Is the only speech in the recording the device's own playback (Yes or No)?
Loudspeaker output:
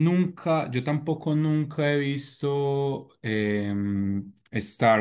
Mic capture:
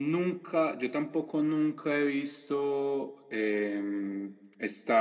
Yes